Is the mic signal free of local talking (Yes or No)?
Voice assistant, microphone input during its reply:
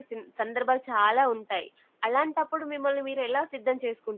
No